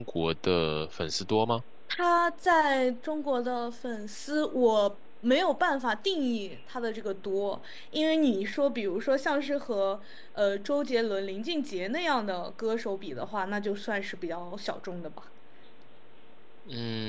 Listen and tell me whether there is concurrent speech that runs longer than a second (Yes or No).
No